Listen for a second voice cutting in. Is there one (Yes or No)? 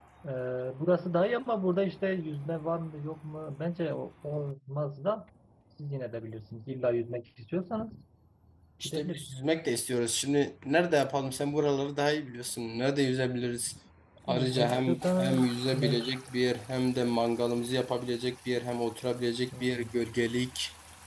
Yes